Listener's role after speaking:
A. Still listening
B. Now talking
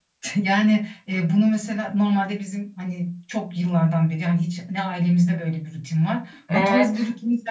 A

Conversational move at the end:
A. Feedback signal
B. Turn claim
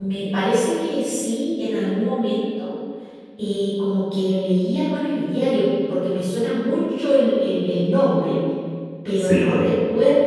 A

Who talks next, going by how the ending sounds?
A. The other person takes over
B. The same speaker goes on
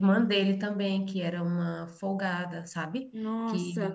A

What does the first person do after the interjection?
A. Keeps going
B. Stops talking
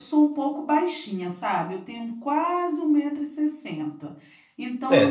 B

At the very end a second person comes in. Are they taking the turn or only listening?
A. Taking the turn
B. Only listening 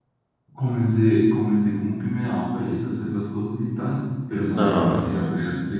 B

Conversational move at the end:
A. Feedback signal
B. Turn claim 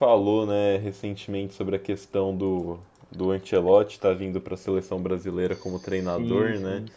A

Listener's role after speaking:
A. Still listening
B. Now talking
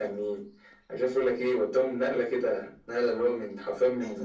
A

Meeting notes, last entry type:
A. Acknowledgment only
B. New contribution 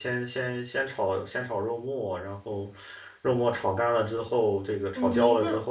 B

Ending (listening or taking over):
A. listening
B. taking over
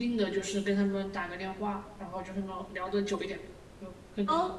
A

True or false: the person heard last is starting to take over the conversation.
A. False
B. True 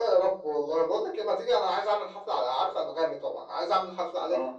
A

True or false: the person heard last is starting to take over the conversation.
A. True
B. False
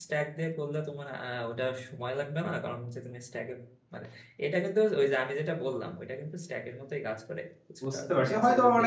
A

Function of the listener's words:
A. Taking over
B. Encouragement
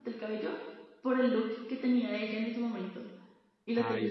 A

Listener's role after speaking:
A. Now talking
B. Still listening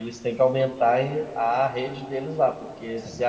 B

